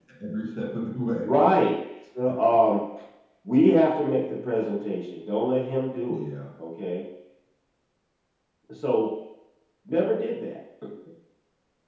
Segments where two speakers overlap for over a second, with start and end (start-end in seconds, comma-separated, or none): none